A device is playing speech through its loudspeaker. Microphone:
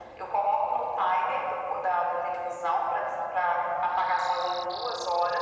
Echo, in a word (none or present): present